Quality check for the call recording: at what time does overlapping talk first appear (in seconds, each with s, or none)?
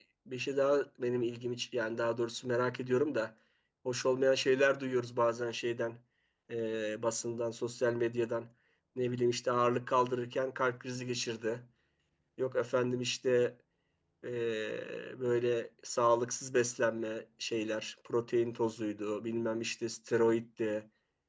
none